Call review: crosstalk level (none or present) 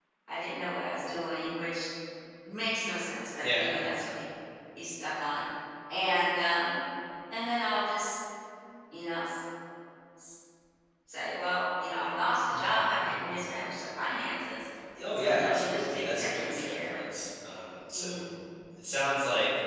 present